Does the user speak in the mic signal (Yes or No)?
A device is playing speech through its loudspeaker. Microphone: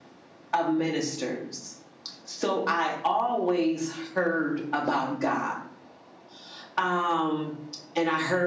No